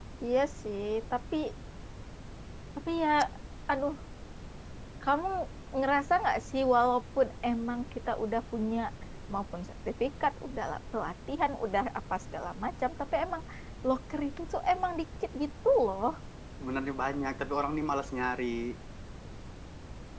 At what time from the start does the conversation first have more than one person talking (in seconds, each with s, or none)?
none